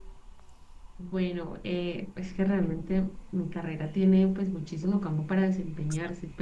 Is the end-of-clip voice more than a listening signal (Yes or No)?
No